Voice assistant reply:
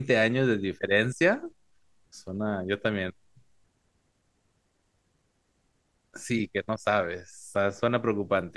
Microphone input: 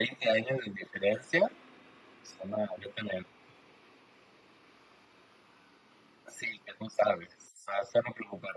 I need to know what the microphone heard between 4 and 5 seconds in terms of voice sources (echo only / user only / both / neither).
neither